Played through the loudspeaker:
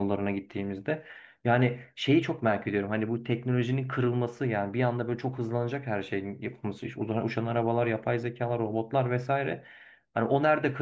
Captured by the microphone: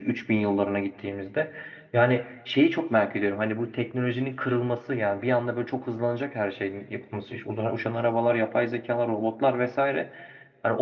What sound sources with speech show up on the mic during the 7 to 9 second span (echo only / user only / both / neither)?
echo only